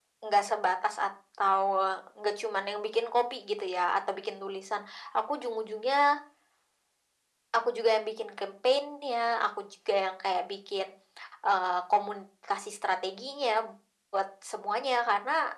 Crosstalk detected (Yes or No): No